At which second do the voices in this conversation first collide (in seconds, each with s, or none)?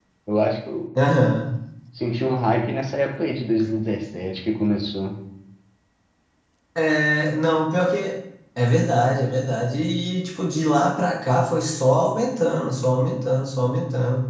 none